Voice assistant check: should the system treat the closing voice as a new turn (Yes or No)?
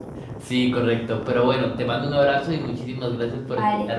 Yes